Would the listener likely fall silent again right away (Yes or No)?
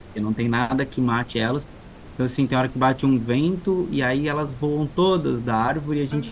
Yes